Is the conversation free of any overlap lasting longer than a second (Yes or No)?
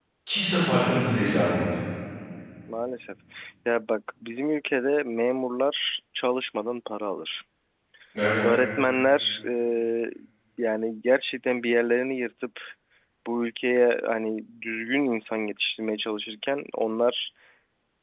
Yes